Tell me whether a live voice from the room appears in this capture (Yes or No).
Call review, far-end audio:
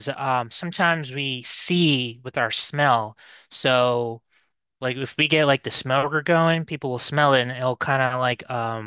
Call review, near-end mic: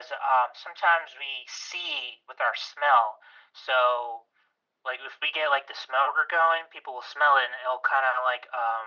No